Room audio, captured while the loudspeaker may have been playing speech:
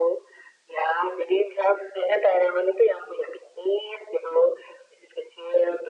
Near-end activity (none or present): none